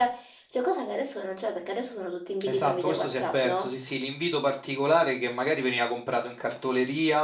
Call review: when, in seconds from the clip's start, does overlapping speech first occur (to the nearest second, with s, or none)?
2 s